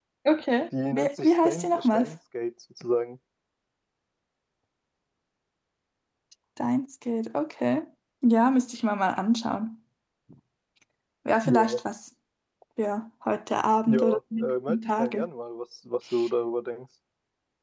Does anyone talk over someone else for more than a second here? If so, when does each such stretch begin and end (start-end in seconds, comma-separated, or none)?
0.9-2.1, 13.9-15.3